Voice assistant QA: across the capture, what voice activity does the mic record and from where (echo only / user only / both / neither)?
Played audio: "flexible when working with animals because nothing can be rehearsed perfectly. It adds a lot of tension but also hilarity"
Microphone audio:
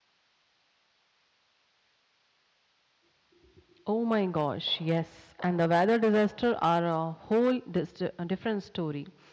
user only